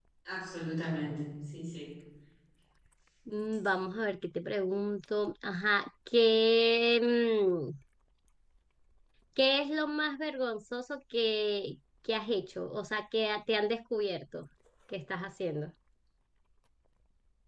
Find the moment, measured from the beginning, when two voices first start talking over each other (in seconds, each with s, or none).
none